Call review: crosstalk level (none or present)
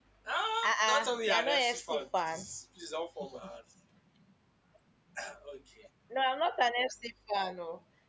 present